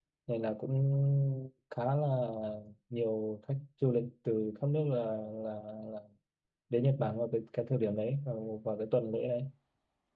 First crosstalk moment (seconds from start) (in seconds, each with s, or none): none